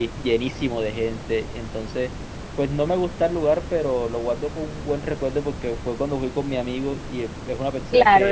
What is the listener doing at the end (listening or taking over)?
taking over